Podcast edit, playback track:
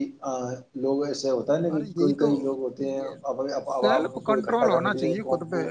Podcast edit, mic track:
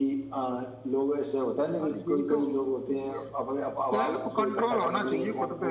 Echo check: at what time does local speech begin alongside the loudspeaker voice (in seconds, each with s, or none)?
none